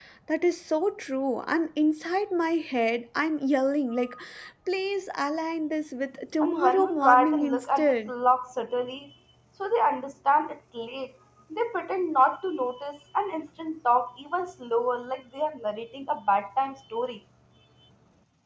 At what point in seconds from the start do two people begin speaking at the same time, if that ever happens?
6 s

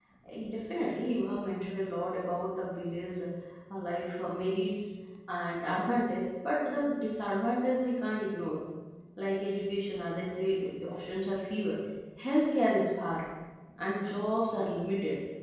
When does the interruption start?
none

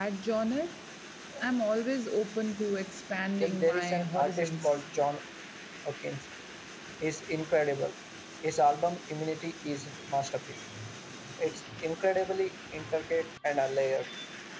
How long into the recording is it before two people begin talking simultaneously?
3 s

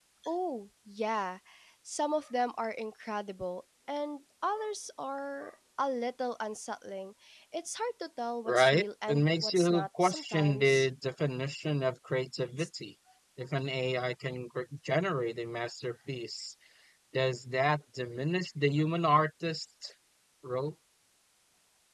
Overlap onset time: 8 s

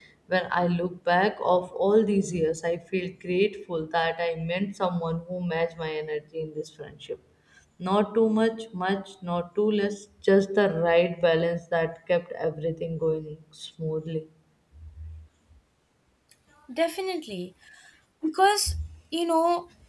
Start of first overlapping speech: none

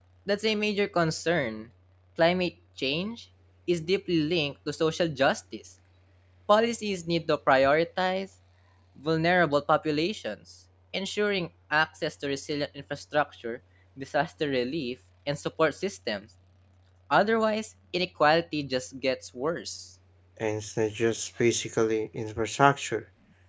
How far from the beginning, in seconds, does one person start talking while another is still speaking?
none

